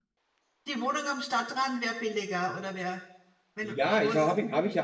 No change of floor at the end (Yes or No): No